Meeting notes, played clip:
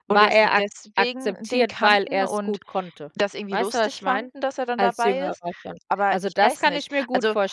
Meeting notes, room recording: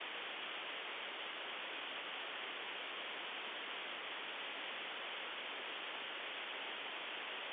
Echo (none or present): none